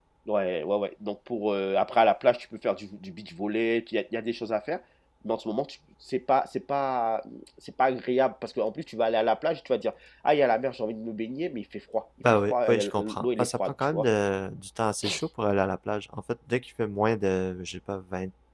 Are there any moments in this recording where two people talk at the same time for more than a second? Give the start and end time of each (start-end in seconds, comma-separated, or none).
12.5-14.1